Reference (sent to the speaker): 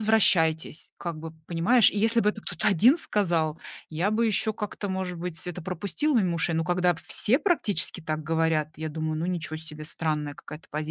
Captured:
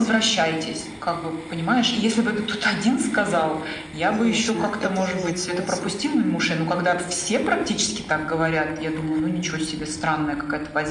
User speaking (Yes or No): Yes